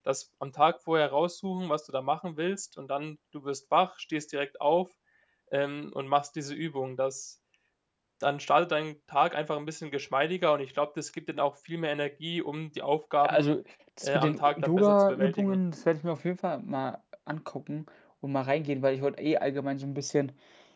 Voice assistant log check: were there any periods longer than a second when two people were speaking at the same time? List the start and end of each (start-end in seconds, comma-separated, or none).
14.0-15.6